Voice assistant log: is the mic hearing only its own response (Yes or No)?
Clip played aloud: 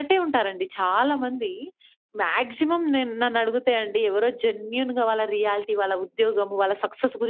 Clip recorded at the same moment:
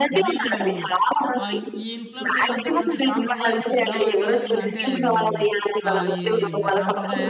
No